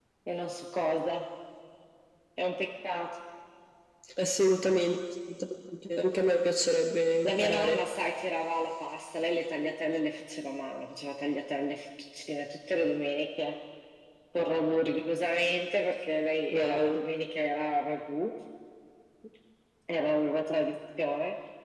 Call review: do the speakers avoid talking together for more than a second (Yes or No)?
Yes